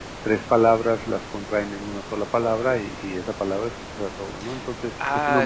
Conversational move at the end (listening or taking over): taking over